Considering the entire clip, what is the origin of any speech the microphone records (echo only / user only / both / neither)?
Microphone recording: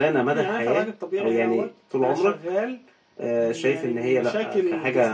echo only